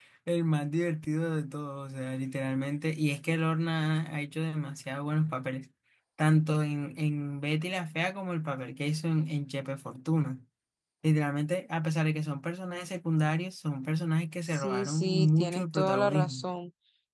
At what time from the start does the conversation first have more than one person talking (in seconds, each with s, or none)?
14.4 s